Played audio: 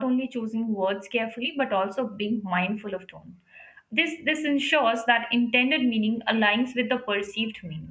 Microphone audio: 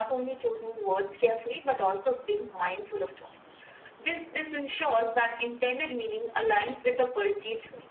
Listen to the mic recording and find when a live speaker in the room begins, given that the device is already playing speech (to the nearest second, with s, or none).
none